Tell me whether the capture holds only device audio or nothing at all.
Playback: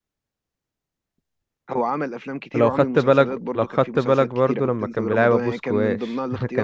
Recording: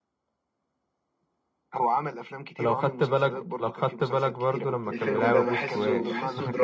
No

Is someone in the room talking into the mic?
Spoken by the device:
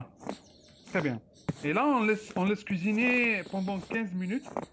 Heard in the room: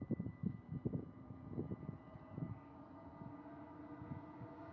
No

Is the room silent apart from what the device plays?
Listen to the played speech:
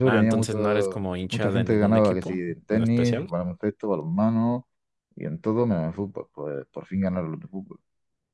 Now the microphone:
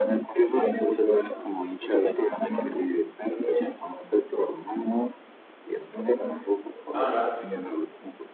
No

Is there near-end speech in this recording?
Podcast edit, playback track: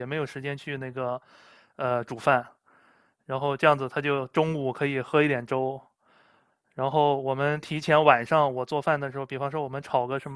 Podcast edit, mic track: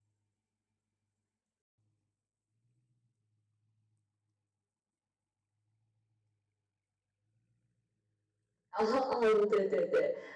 Yes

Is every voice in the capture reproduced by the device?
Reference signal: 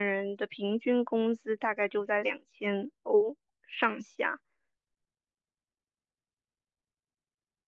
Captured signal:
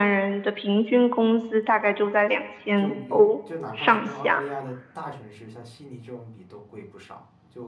No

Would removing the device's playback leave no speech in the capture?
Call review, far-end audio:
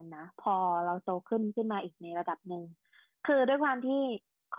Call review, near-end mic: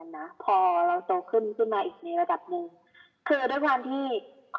Yes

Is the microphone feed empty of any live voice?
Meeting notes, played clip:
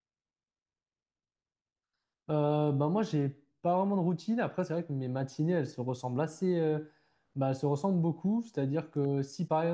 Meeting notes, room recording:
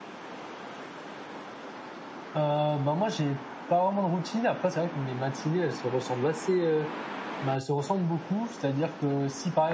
Yes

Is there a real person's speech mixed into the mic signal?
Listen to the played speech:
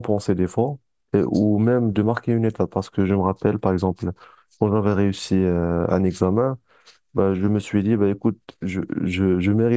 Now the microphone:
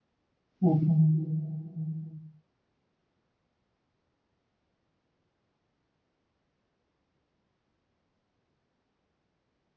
Yes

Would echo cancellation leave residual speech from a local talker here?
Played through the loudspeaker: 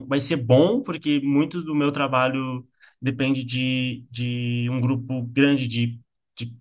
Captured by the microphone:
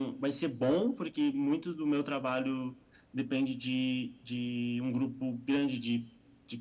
No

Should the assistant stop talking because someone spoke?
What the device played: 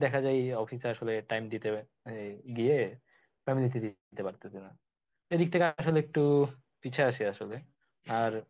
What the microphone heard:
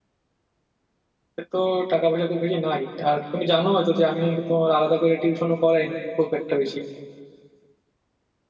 Yes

